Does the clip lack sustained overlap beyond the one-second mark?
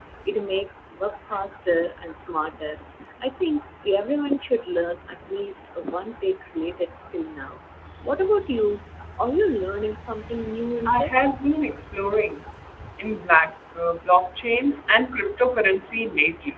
Yes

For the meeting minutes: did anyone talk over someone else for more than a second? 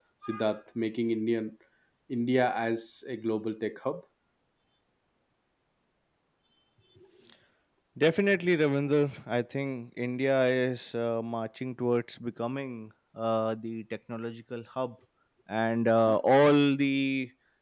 No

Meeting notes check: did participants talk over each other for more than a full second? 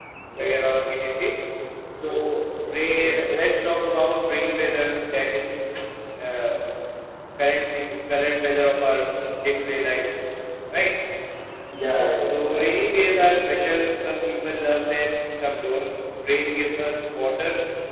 No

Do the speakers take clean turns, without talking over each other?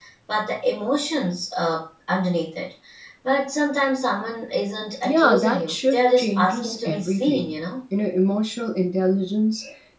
No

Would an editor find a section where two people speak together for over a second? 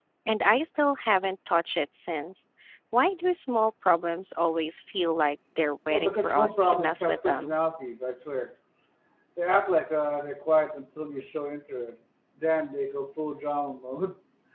Yes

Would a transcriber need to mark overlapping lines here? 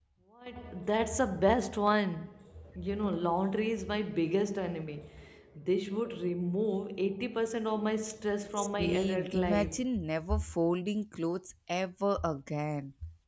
Yes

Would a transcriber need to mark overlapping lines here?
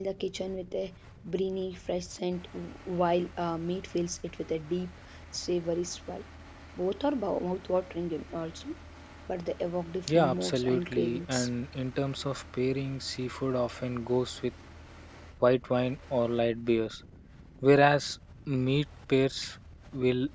Yes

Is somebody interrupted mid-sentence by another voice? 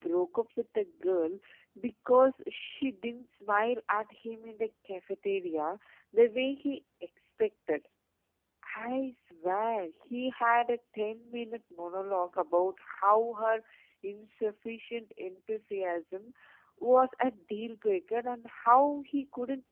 No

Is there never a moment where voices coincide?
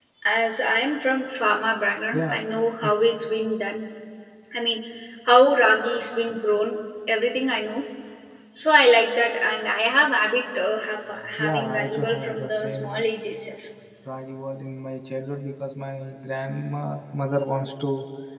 No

